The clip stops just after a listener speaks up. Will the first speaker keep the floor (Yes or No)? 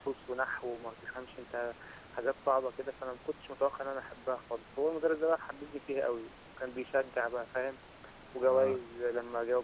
Yes